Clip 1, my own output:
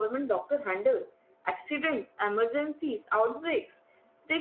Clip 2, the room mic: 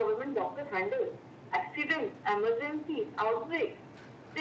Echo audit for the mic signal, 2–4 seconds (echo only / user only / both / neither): echo only